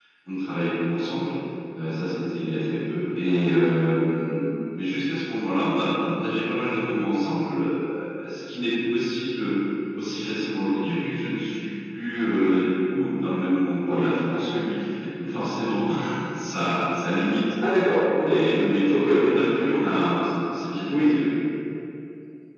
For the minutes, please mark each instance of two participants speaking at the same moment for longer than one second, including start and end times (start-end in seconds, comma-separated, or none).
none